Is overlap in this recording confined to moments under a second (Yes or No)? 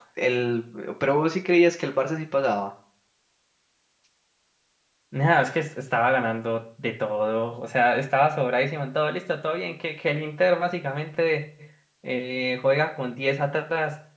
Yes